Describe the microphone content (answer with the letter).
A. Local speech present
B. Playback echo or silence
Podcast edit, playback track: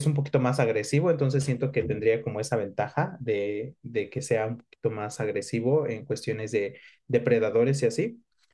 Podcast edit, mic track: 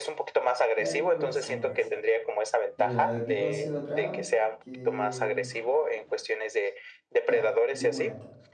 A